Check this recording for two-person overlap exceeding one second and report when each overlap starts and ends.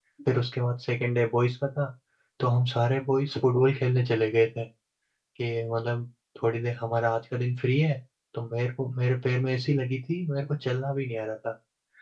none

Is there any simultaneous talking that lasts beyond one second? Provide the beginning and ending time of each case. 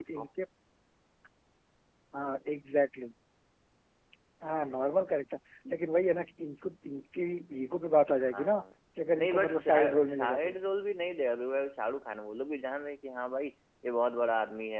9.2-10.6

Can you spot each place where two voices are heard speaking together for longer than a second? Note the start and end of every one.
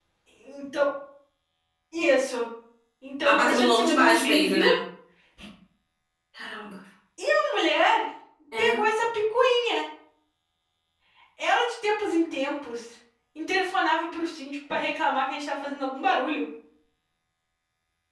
3.3-4.6

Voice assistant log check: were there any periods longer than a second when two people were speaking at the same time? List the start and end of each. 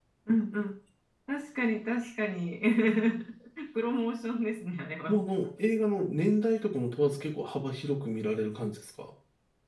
none

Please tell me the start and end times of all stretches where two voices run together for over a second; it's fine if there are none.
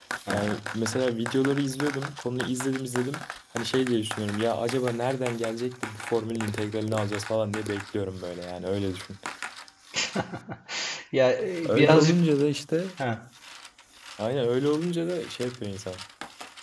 none

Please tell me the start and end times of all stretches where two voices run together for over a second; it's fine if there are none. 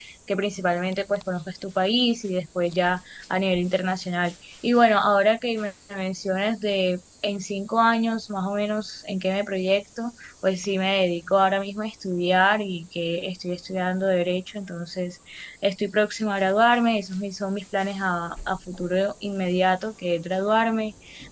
none

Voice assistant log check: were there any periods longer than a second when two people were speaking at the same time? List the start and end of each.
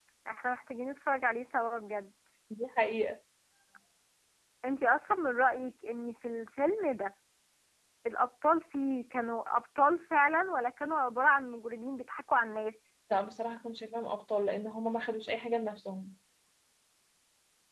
none

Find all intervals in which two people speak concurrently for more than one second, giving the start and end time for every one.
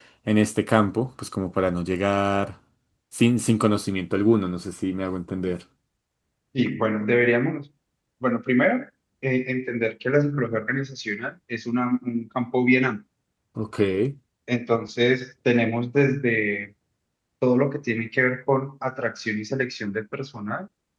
none

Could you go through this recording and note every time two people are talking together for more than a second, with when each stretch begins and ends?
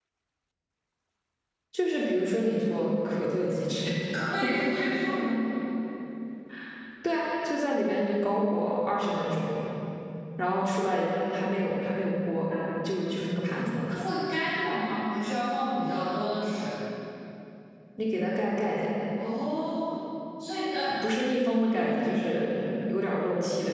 none

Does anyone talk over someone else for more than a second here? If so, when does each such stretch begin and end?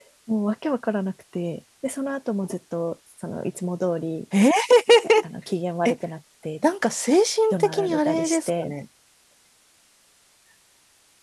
7.5-8.7

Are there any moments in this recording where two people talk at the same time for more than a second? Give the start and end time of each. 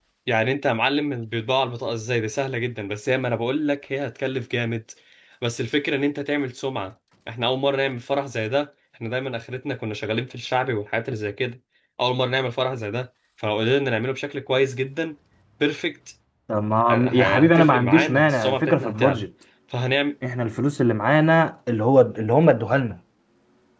16.9-19.2

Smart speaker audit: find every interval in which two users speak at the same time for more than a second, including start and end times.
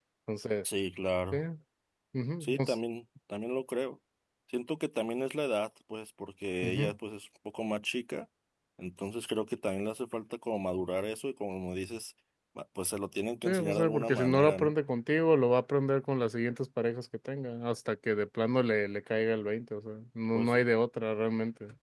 13.4-14.7

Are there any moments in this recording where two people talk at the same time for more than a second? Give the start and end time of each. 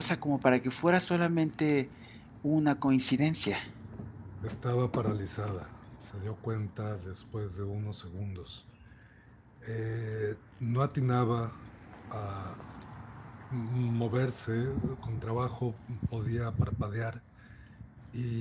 none

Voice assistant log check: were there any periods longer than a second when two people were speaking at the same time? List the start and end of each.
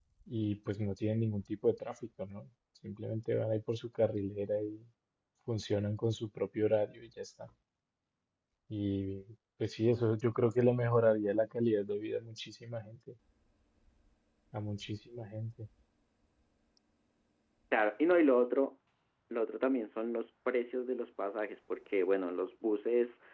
none

